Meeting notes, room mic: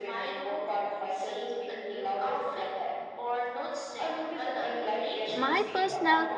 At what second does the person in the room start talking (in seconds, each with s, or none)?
5.4 s